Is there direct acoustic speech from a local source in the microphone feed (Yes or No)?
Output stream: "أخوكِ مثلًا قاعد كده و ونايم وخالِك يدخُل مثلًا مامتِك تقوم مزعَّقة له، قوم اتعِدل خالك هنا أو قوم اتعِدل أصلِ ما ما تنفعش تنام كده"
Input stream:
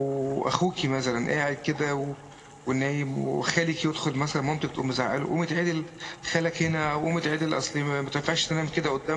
No